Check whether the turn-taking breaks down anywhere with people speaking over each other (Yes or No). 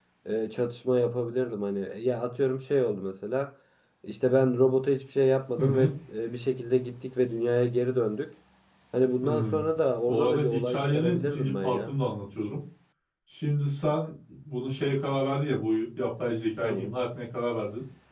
Yes